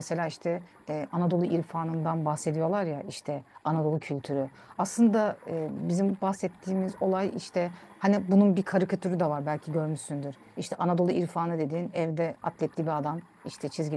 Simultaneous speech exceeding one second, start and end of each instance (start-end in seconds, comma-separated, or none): none